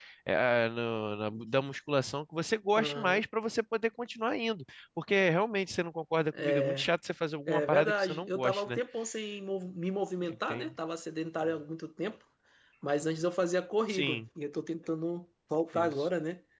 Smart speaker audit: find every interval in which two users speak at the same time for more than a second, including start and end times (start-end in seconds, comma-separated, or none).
7.5-8.8